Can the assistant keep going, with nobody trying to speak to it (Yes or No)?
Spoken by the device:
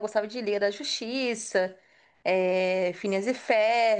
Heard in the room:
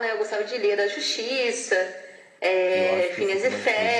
No